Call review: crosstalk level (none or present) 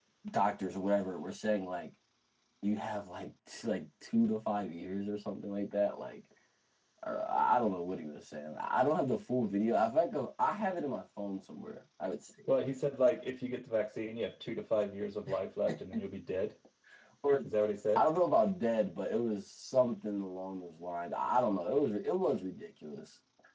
none